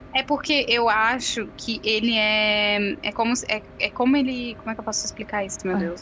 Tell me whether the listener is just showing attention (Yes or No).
Yes